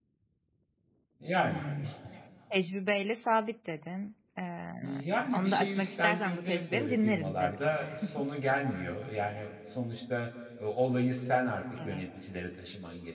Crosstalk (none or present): present